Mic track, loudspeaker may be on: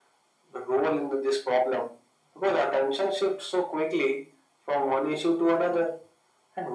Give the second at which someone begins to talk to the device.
none

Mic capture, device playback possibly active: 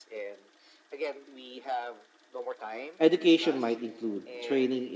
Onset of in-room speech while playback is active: 3.0 s

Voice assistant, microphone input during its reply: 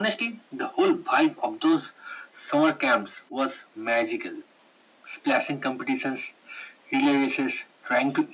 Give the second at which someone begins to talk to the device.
none

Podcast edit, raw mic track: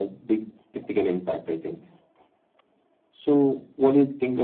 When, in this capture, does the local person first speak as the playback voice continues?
none

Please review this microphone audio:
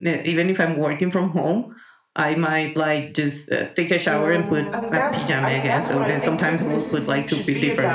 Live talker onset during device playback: 4.1 s

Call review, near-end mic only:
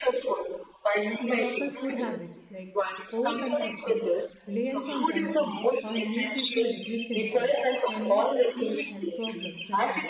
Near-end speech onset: 1.2 s

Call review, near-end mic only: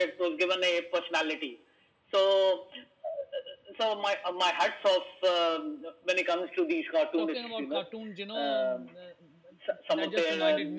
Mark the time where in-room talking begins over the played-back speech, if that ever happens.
7.2 s

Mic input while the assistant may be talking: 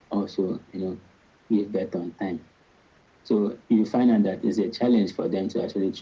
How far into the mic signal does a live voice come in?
none

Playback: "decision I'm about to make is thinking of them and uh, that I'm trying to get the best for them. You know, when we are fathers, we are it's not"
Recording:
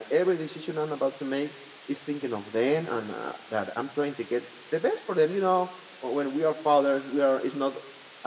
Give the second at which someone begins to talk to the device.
none

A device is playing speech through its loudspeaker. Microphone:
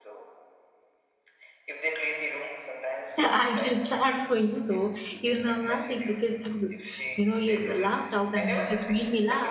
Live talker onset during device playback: 3.2 s

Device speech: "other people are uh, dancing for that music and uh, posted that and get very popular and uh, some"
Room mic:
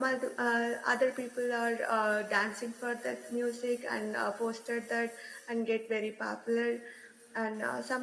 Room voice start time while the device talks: none

